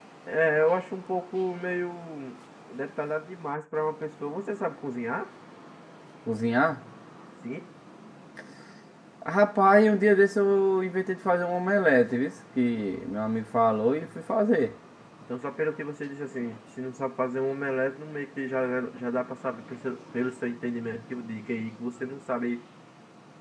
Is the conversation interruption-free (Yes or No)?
Yes